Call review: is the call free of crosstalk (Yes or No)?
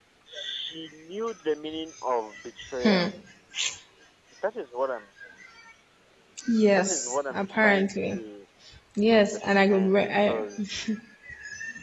No